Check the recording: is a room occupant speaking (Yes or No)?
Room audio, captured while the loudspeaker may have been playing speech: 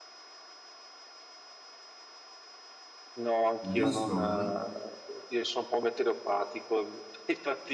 Yes